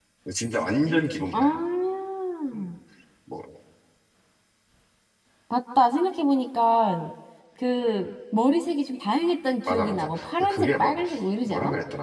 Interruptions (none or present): present